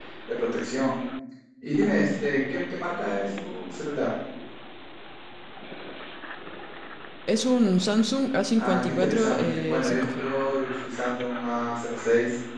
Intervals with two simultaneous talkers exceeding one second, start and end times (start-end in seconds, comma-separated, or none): 8.6-10.3